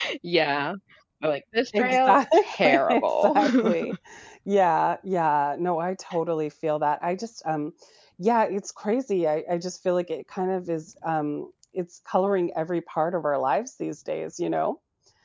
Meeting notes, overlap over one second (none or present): present